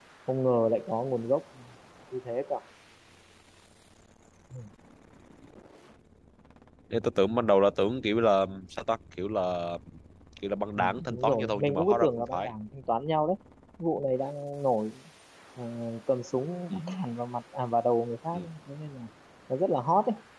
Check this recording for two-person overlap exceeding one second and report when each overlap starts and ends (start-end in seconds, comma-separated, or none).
10.8-12.5